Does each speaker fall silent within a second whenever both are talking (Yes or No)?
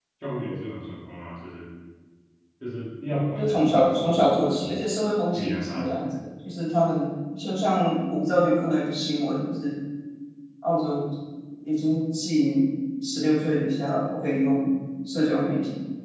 No